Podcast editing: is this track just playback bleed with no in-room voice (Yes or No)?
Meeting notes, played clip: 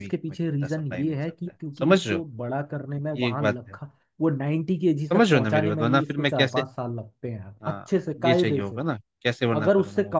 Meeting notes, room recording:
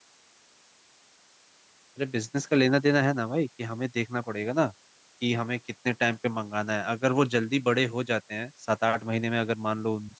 No